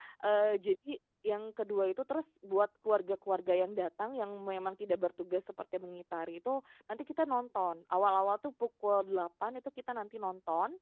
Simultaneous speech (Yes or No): No